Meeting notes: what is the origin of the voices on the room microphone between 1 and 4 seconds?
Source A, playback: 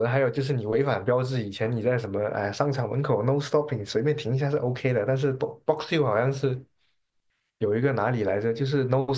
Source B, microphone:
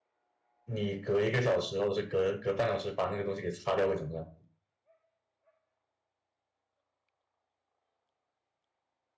user only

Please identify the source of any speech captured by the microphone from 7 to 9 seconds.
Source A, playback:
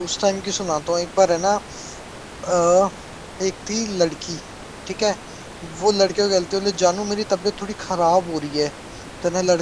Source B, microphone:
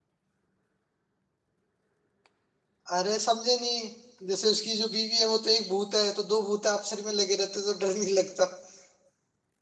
user only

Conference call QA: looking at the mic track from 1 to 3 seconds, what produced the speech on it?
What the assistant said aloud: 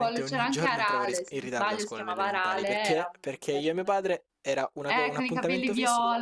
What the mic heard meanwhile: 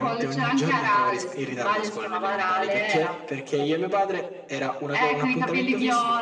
echo only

